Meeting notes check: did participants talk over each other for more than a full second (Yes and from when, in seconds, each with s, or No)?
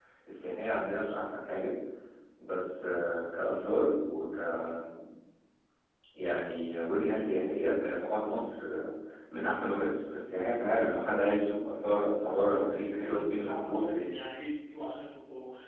Yes, from 12.3 s